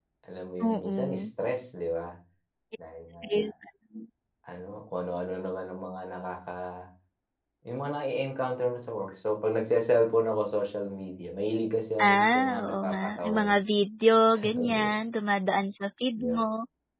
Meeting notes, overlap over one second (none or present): present